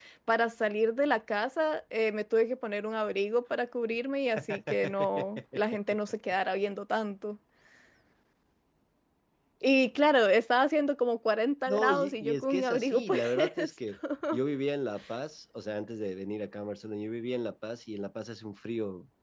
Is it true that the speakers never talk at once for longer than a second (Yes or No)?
No